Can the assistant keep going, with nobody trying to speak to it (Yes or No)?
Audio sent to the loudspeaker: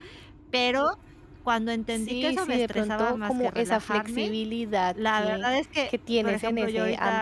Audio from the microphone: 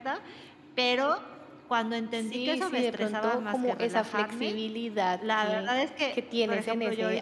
Yes